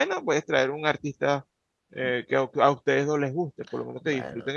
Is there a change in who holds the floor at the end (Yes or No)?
Yes